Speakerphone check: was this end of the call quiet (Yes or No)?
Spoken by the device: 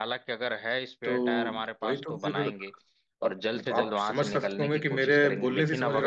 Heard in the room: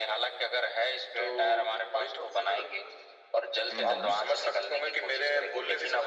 No